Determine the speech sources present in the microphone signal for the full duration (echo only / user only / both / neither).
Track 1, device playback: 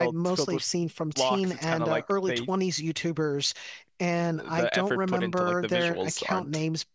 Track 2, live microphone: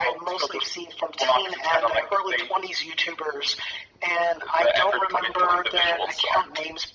echo only